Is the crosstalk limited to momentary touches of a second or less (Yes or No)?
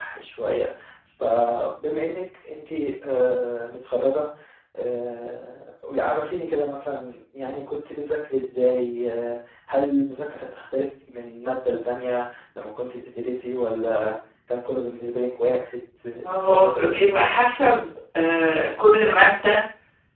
No